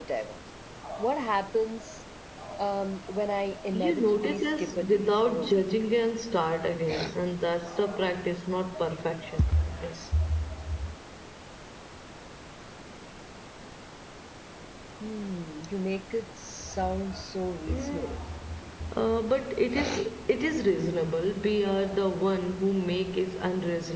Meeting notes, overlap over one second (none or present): present